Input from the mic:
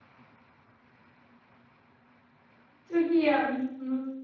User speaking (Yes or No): Yes